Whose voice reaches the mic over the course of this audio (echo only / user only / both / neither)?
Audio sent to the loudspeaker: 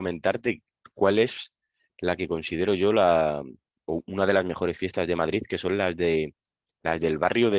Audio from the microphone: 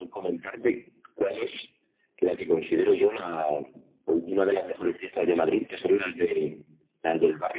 echo only